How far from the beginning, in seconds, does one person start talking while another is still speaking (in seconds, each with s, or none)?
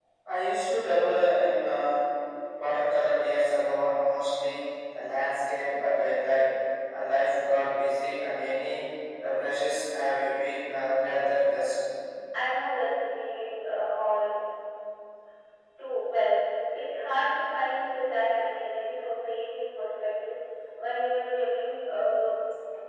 none